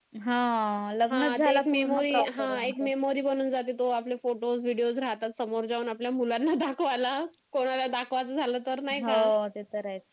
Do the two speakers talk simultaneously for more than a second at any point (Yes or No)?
Yes